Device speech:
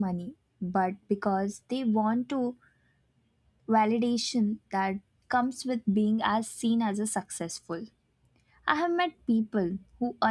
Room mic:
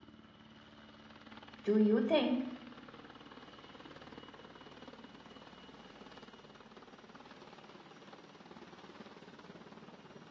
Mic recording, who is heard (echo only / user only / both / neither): user only